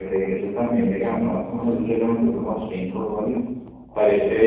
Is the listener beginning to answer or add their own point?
No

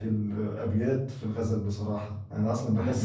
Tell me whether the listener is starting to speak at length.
No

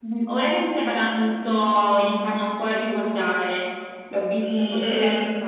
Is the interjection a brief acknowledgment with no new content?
No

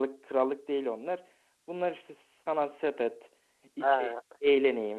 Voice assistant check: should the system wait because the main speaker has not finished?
Yes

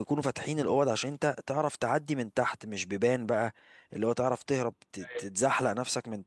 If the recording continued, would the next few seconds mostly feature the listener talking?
No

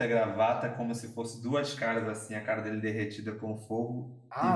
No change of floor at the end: No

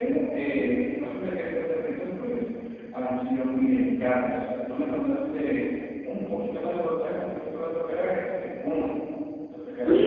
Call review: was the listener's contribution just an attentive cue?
No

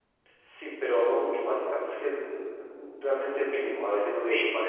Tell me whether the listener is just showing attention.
No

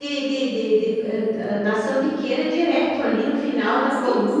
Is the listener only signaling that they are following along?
No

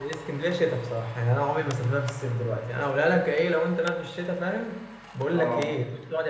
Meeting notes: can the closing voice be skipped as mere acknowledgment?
Yes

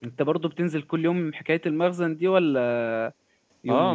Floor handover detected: Yes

